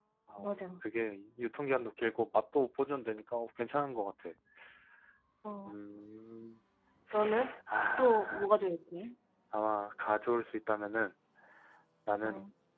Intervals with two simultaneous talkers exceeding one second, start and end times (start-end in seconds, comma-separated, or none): none